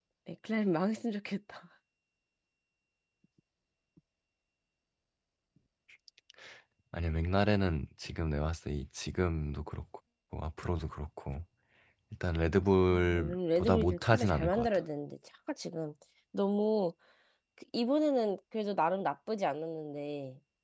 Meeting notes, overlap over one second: present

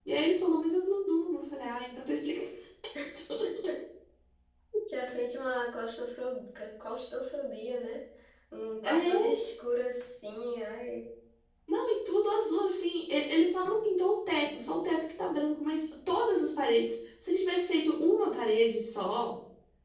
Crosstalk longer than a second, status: none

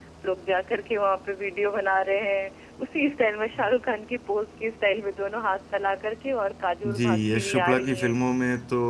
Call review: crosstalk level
present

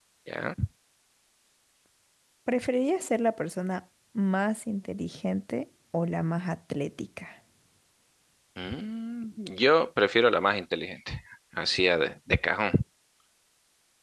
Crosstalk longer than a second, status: none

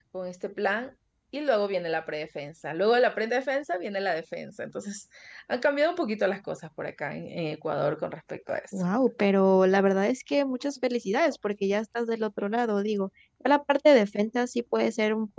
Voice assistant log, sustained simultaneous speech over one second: none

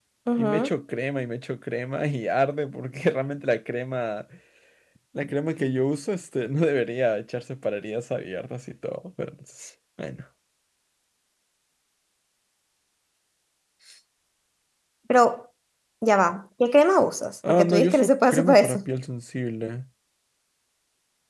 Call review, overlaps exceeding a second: present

